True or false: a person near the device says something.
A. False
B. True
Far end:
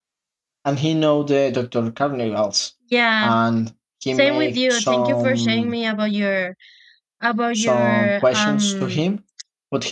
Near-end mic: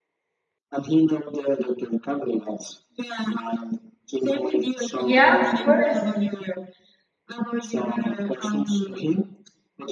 B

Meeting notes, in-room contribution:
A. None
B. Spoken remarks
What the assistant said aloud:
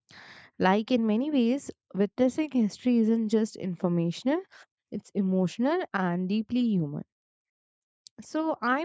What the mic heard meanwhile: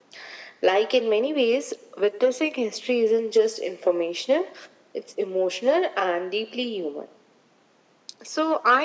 A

